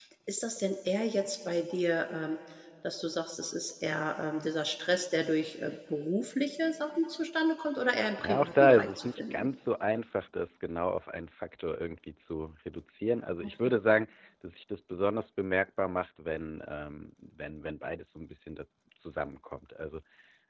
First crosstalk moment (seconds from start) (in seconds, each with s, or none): 8.2 s